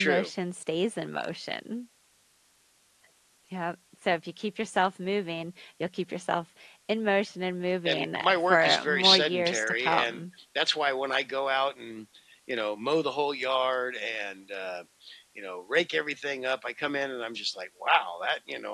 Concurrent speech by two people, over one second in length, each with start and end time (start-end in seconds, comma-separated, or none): 7.8-10.2